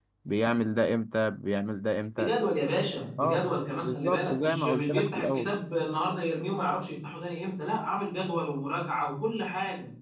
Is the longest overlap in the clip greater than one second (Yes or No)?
Yes